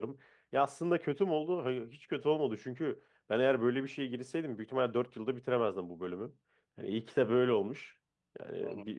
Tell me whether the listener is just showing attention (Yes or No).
Yes